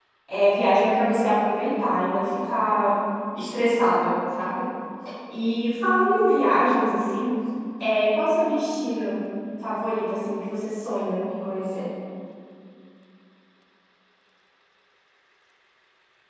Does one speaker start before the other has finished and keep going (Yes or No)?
No